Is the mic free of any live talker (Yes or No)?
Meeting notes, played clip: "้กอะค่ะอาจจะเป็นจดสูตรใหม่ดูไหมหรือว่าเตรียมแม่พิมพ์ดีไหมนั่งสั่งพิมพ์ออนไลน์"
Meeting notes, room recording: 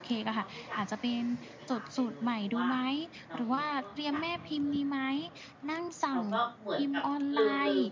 No